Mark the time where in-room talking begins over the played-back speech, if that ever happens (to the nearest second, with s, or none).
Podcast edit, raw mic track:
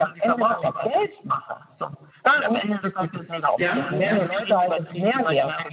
4 s